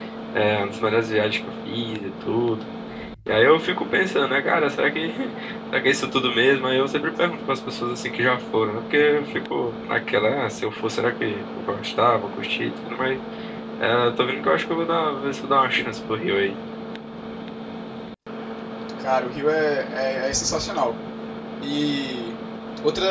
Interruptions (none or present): none